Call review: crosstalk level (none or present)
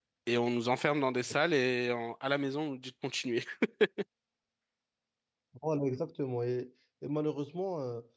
none